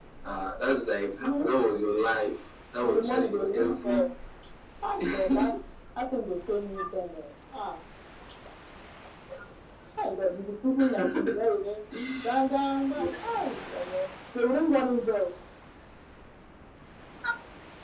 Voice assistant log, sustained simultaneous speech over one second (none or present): present